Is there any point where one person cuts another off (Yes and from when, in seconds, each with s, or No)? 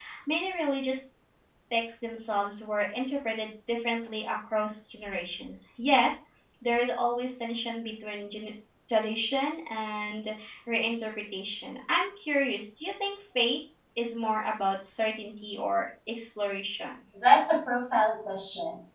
No